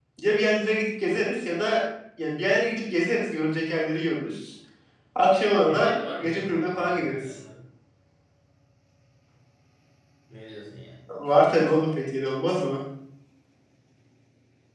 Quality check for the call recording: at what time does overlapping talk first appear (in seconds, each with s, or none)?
5.7 s